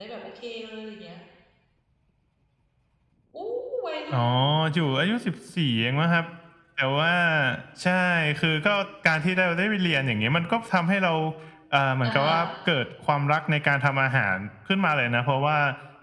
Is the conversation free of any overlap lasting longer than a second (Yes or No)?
Yes